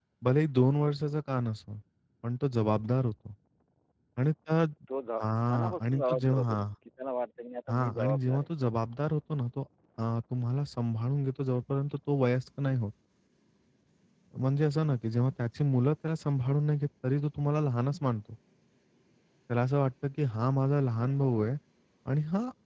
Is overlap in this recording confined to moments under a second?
No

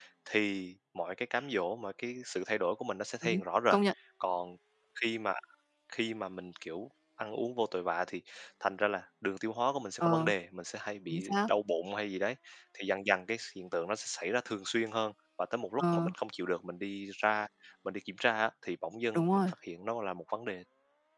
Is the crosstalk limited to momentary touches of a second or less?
Yes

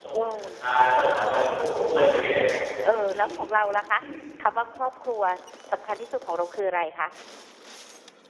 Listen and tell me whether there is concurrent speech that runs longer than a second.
No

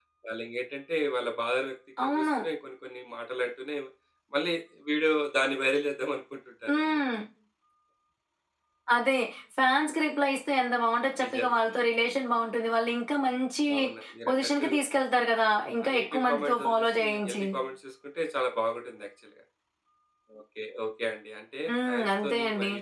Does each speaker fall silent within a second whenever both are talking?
No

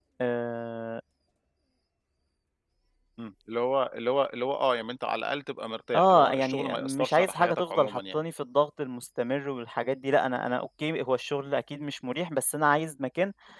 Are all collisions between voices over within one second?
No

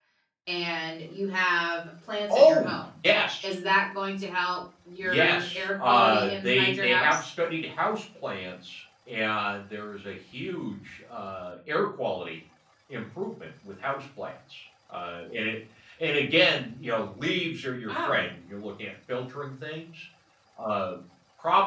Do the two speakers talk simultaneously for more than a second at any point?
Yes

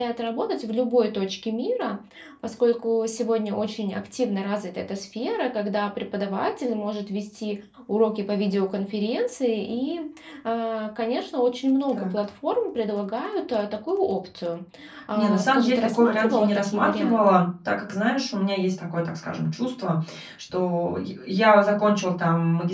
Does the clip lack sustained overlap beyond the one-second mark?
No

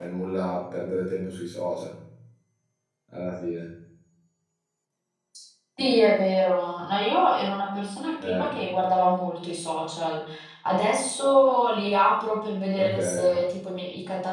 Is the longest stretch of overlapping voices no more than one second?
Yes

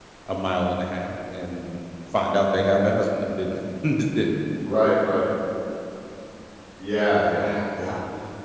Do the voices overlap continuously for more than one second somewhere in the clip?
No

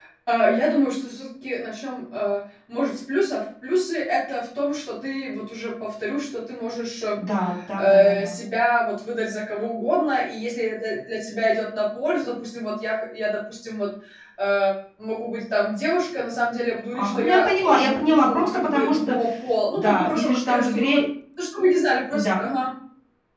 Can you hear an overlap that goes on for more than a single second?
Yes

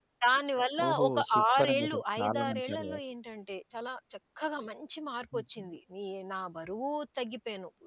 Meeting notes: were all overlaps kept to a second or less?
No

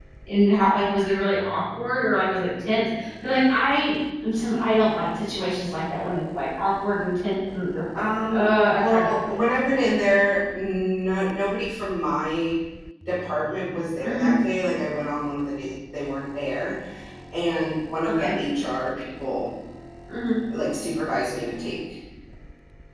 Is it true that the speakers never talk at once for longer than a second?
No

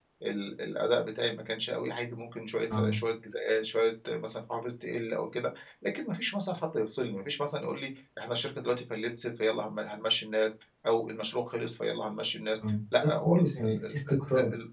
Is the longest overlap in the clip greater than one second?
Yes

